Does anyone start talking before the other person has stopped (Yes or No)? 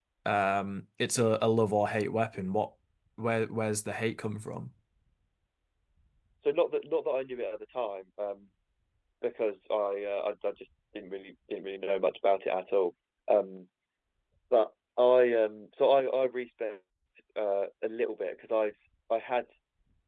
No